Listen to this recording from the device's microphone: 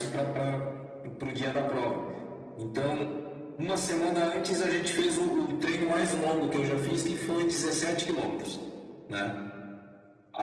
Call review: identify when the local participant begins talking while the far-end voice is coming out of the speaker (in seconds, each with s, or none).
none